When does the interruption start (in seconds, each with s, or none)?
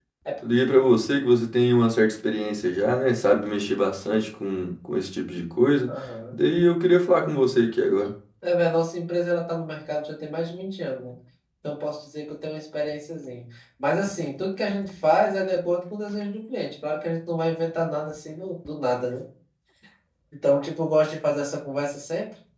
none